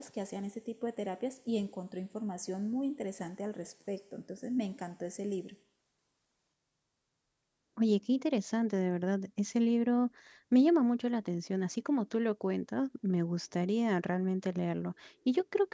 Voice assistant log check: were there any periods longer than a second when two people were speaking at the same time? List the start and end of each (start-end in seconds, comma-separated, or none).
none